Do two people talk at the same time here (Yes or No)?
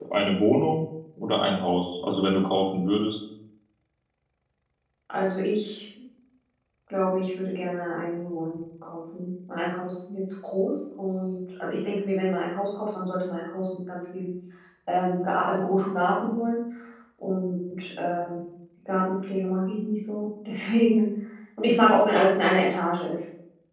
No